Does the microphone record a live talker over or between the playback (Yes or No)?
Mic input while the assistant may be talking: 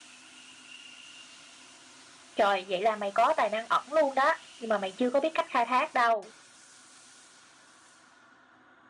Yes